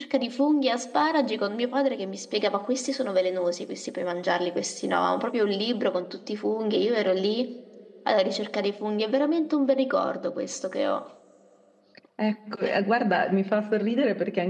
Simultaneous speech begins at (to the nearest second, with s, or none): none